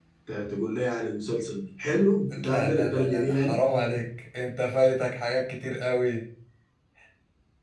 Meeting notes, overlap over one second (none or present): present